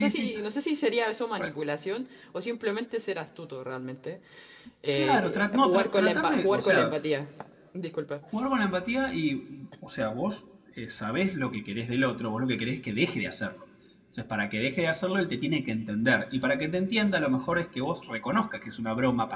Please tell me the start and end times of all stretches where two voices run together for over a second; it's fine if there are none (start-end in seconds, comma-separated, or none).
4.9-6.9